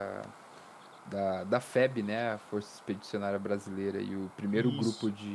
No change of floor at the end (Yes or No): Yes